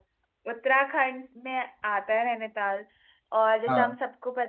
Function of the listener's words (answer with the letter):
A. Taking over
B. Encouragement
B